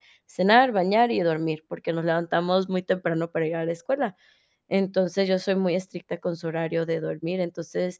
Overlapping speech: No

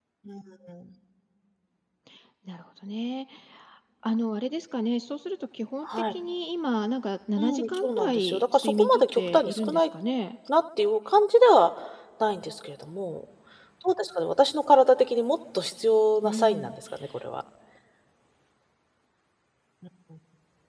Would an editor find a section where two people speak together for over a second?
Yes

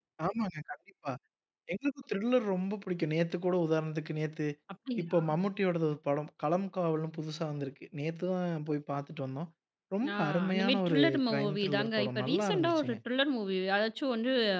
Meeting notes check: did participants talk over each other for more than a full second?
Yes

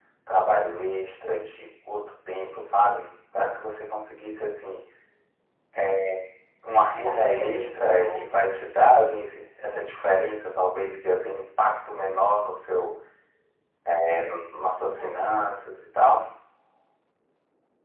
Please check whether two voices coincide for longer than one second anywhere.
Yes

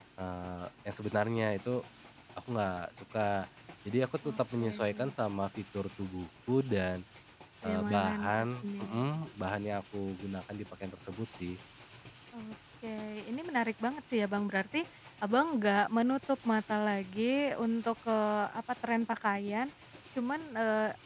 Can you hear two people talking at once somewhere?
Yes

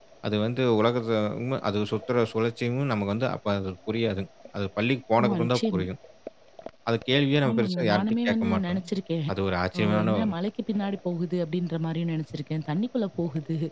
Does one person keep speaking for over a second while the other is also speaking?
Yes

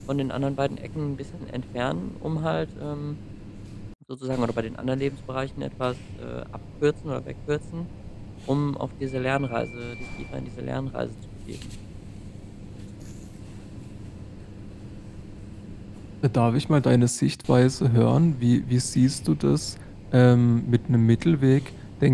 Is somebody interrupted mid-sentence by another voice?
No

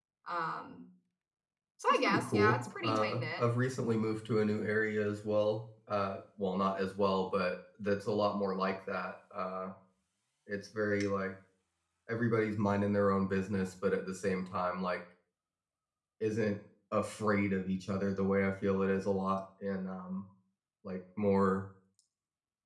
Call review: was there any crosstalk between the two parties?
Yes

